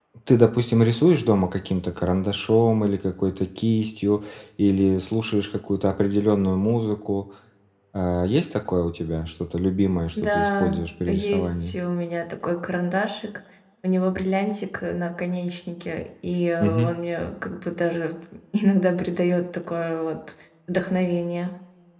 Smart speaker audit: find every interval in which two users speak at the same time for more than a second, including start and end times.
10.2-11.8

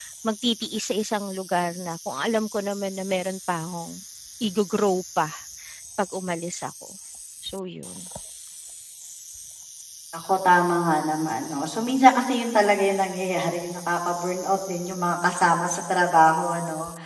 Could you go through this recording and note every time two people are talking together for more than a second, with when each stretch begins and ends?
none

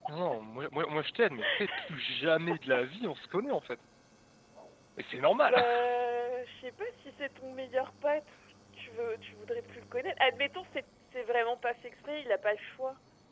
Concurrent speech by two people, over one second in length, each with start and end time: none

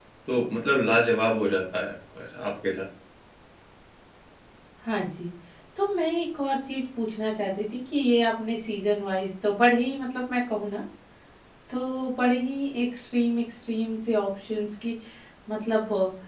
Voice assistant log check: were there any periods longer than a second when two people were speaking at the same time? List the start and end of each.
none

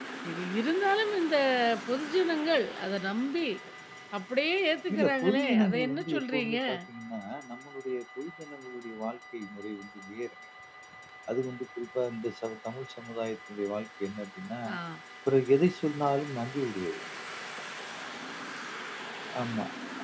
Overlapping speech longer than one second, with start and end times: 4.9-6.6

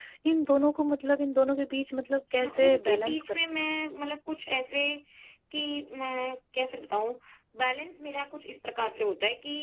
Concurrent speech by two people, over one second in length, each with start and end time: 2.3-3.7

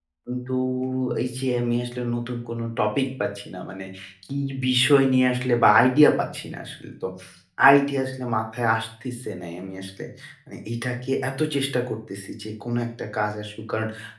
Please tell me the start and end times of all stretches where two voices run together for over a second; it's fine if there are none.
none

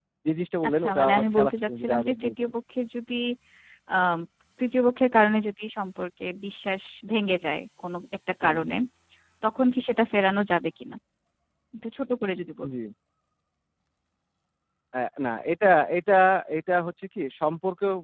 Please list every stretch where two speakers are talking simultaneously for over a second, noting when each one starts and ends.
0.7-2.5

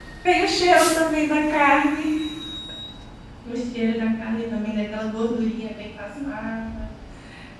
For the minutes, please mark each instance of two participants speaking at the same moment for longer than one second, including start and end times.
none

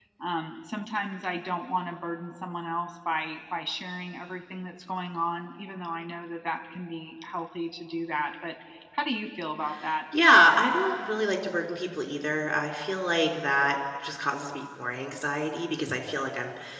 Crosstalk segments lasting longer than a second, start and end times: none

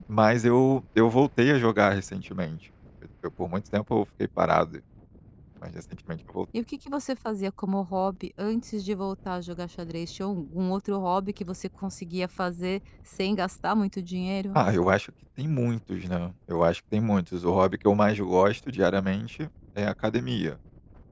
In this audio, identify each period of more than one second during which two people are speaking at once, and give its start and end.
none

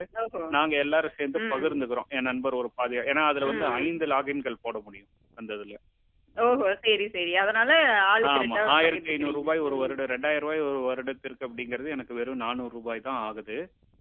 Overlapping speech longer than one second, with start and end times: 8.4-9.9

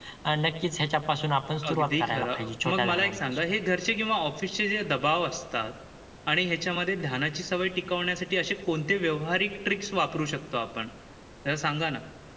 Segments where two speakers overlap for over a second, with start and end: 1.7-3.4

